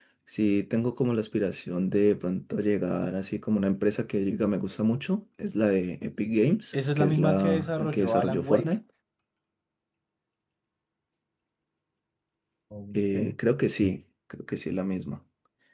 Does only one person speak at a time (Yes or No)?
No